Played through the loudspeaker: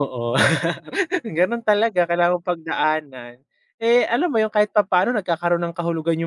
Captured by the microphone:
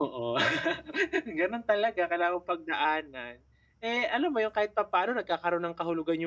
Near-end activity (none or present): none